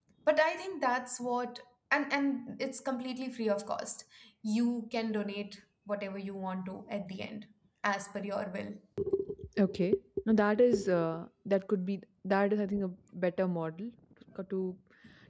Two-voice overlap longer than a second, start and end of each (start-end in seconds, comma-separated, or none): none